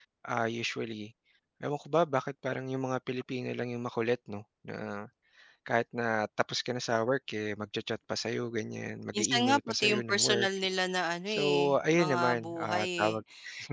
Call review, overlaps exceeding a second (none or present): present